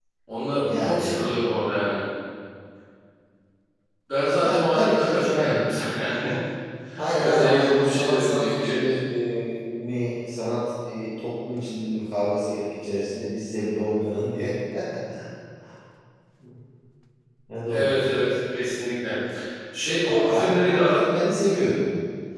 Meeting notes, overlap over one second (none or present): present